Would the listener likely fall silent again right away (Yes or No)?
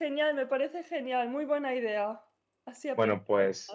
No